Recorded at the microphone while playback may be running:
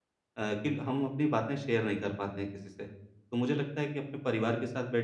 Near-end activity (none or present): present